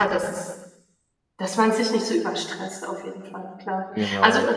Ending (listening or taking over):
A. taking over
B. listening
B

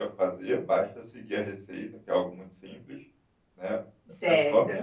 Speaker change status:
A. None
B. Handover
A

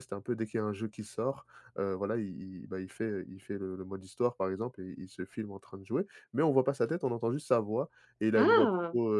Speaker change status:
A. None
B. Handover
A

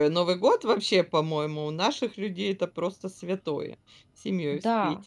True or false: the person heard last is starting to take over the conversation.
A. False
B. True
B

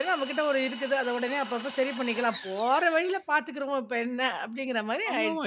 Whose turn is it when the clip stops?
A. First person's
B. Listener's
B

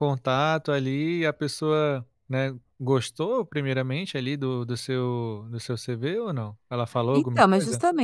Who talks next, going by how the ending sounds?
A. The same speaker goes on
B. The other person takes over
B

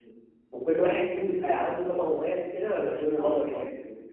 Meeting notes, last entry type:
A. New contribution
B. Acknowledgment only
A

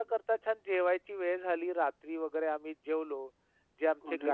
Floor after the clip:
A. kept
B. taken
A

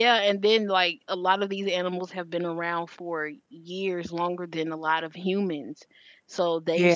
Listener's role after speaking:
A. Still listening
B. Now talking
A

